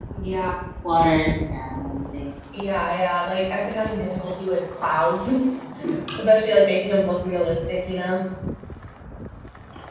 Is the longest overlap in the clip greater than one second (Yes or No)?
No